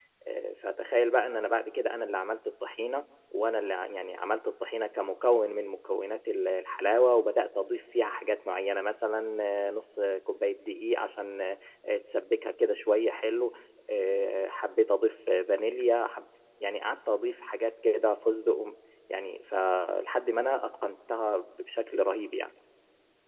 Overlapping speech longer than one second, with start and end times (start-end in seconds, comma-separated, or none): none